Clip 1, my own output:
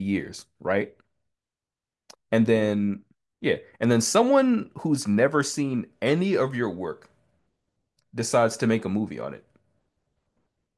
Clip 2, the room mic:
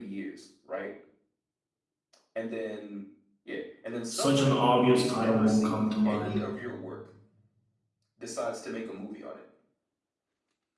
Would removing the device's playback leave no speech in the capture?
No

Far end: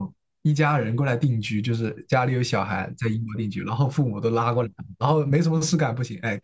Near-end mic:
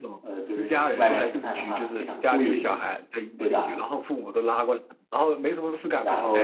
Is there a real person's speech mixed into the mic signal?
Yes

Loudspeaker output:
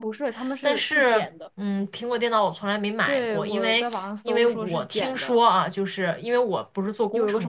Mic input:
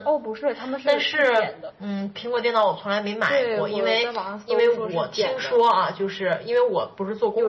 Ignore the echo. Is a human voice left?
No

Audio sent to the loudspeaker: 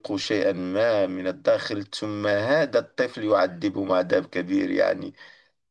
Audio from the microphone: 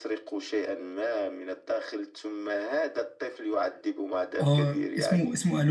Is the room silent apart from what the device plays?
No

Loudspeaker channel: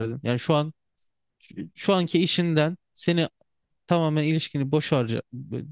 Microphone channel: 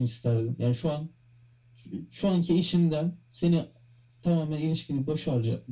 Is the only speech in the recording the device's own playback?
Yes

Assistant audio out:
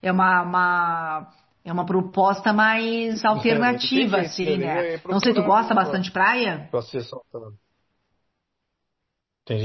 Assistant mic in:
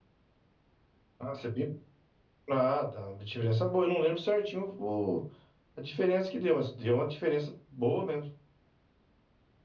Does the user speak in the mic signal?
Yes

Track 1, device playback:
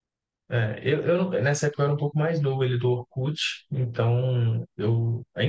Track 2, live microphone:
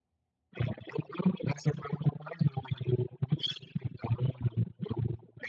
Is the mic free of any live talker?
Yes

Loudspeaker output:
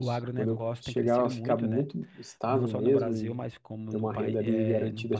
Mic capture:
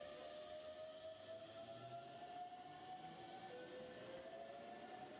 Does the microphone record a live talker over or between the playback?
No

